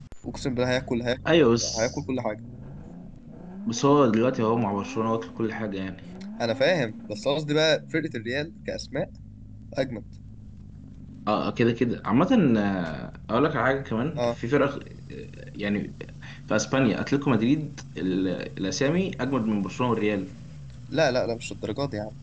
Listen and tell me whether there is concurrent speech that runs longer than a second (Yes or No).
No